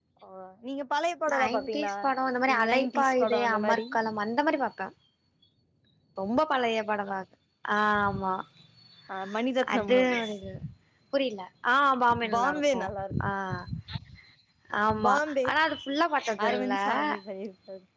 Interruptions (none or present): present